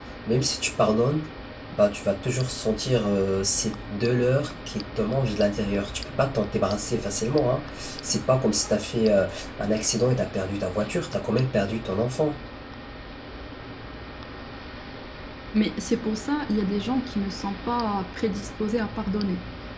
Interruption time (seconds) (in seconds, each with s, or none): none